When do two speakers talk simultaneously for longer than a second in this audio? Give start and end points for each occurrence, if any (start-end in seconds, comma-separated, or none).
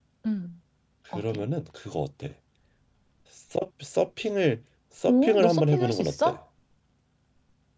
5.1-6.4